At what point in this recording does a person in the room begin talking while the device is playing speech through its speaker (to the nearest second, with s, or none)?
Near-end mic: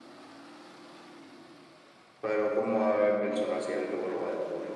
none